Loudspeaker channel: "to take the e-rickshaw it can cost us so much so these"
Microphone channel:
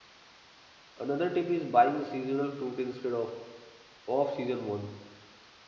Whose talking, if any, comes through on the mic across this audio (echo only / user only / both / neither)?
user only